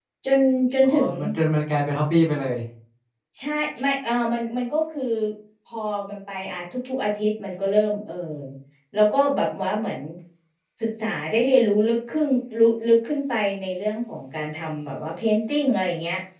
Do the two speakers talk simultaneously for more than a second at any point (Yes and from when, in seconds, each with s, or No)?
No